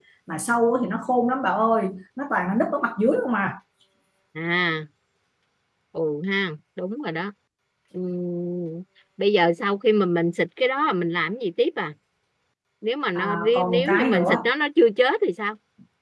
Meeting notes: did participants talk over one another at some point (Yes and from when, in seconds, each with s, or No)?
Yes, from 13.2 s